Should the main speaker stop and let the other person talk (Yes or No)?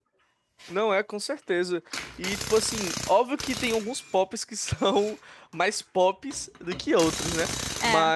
No